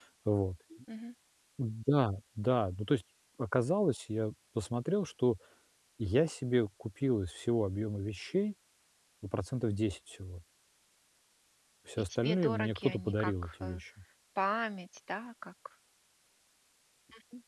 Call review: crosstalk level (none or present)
present